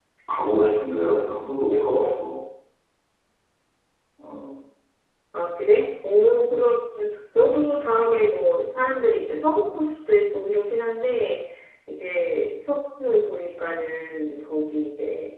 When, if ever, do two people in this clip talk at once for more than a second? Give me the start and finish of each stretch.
none

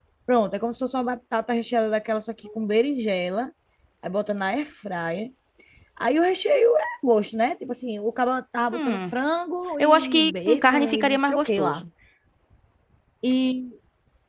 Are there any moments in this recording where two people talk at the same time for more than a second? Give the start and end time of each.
9.8-11.8

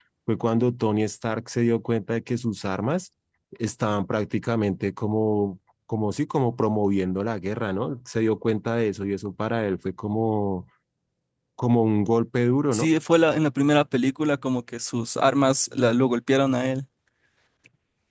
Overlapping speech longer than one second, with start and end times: none

